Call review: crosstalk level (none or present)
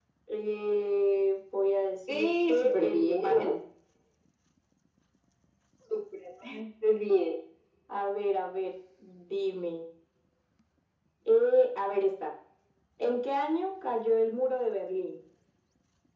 present